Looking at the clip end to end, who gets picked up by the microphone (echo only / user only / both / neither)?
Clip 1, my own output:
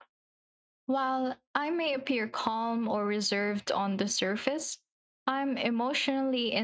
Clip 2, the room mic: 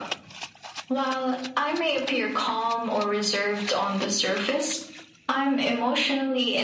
echo only